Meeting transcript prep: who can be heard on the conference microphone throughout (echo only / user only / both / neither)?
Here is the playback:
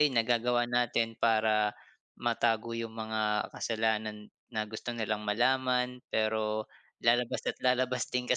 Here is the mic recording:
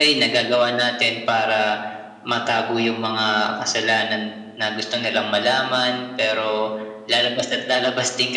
echo only